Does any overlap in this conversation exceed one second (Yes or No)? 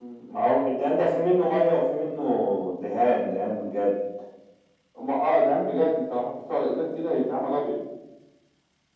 No